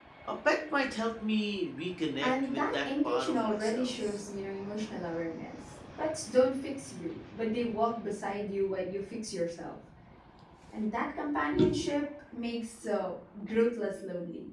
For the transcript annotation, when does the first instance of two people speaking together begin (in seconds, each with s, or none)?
2.2 s